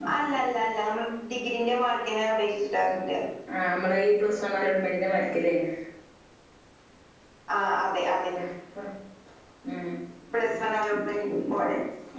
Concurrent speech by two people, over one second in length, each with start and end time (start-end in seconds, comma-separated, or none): none